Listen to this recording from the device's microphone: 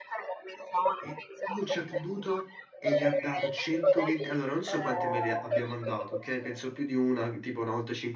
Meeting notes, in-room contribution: present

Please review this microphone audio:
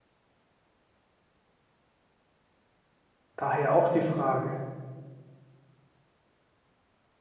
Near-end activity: present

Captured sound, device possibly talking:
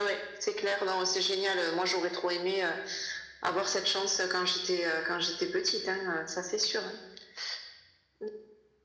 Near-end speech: none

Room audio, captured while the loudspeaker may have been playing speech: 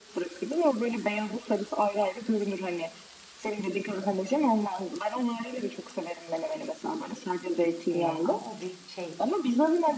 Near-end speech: present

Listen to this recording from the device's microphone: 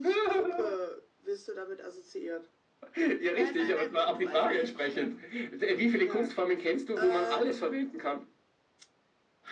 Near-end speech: present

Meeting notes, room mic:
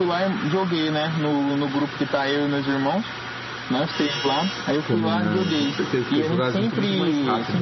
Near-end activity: present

